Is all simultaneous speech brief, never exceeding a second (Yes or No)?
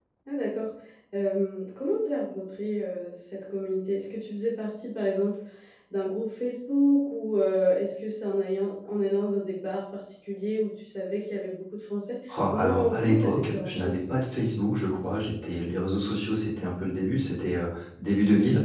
No